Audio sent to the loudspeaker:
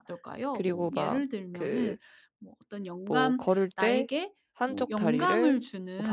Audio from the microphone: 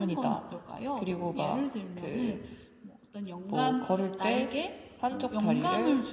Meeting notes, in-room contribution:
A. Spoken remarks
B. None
B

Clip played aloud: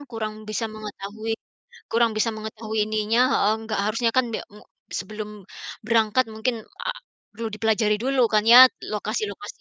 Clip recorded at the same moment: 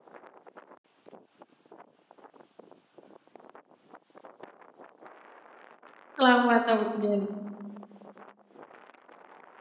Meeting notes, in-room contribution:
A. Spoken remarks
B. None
A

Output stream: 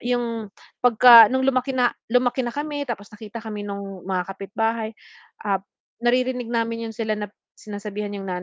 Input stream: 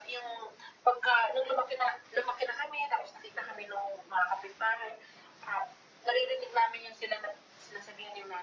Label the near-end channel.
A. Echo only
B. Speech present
A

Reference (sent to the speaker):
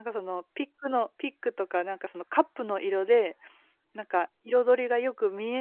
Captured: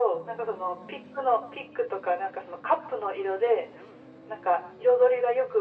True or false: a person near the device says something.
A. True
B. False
B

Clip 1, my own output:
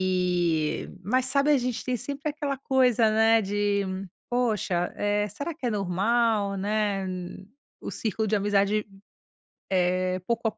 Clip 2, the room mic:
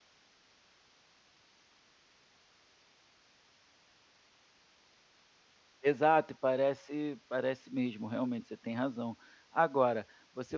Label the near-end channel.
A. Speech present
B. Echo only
A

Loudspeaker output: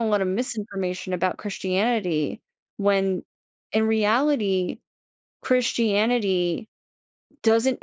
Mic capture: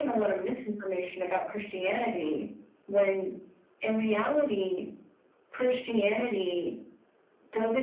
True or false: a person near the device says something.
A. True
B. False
B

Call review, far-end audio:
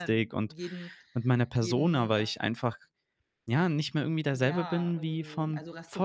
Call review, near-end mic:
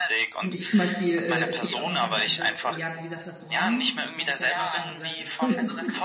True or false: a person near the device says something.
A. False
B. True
B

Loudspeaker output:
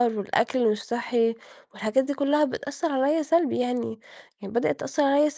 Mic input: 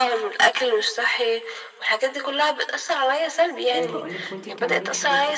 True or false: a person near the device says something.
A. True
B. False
A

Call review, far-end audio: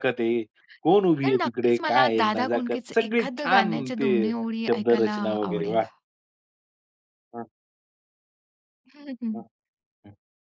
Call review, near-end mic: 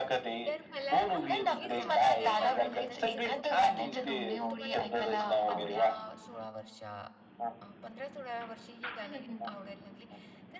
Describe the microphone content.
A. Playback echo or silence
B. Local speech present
B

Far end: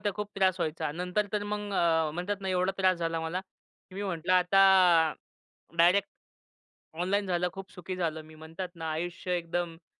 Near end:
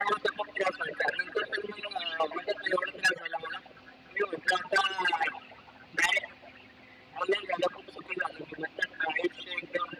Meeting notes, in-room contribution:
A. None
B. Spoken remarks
A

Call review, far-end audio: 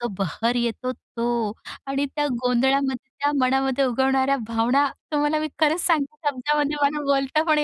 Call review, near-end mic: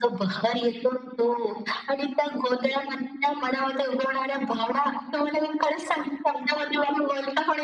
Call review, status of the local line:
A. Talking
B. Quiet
B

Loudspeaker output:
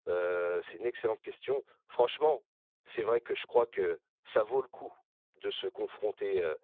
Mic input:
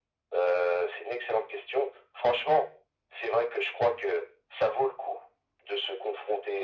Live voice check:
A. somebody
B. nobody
B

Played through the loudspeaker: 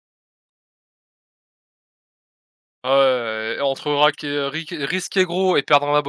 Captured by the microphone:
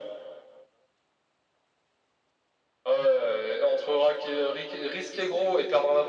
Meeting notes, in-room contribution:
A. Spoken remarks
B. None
B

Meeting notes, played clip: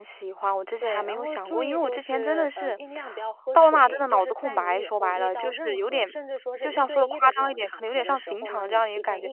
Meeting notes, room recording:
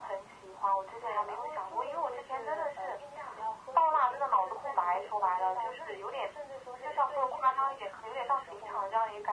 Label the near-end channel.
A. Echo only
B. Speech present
A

